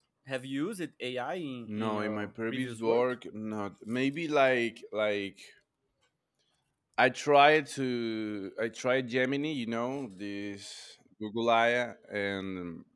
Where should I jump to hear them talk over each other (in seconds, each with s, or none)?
1.7 s